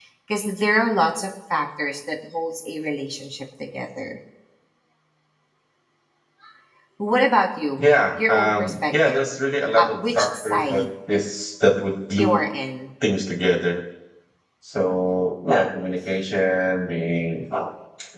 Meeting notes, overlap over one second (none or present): present